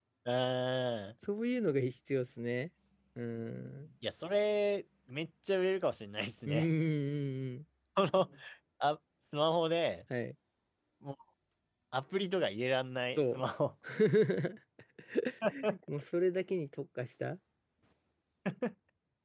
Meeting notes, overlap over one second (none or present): none